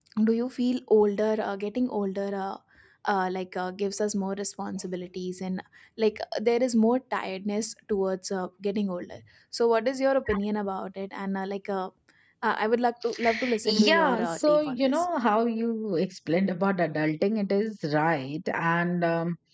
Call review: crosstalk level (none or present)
present